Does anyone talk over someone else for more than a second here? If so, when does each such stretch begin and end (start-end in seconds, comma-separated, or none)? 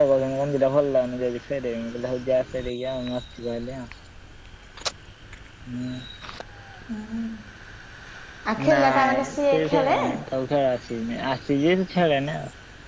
8.7-10.0